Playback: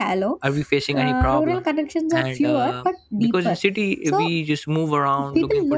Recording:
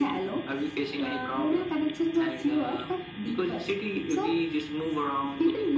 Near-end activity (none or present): none